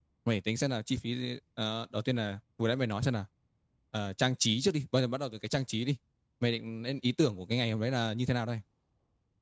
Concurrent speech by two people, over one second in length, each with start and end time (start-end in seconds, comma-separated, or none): none